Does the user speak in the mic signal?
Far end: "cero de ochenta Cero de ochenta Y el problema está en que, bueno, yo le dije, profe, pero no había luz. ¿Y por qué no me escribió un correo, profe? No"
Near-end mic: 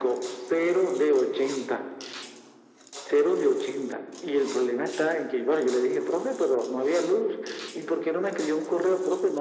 No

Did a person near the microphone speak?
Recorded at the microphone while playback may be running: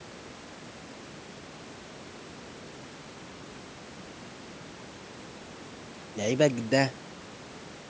Yes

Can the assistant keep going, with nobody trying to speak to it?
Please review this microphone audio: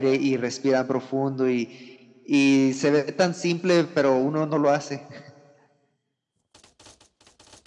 Yes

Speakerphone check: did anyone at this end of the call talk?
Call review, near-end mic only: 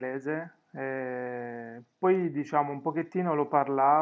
Yes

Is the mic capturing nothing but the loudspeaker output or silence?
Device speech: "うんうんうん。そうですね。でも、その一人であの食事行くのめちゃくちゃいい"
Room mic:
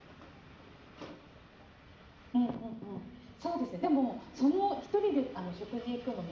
Yes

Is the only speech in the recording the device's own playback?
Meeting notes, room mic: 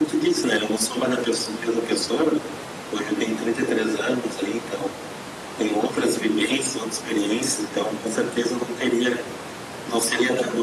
Yes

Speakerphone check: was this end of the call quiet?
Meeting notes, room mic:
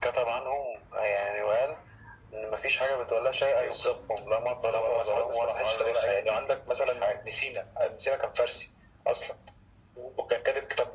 Yes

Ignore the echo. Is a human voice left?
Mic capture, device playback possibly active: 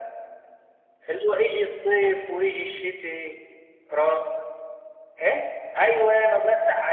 No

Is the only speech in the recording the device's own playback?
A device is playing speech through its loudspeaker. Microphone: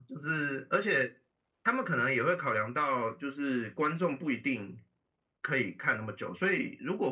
Yes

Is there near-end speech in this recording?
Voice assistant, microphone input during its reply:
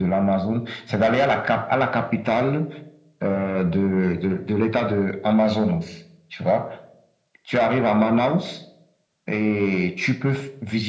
No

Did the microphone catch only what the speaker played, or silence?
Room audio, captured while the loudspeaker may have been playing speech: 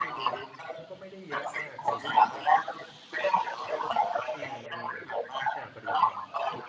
No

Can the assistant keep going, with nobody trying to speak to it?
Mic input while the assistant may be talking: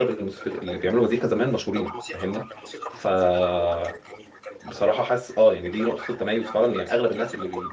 No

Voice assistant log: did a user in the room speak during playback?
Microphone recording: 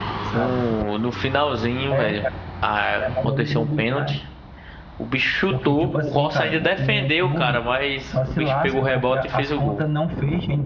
Yes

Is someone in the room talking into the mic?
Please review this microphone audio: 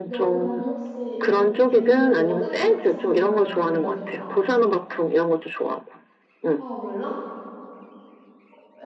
Yes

